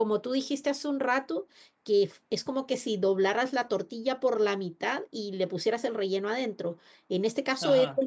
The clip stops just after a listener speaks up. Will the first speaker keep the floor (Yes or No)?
Yes